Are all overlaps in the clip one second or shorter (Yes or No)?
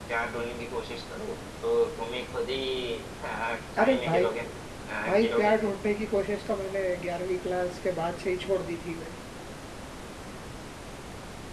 Yes